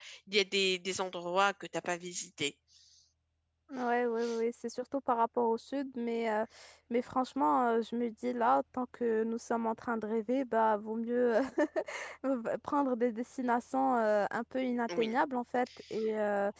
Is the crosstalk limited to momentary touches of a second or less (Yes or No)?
Yes